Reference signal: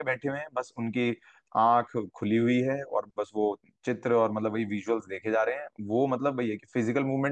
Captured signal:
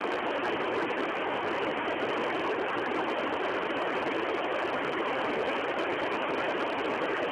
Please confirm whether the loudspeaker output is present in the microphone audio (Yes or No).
No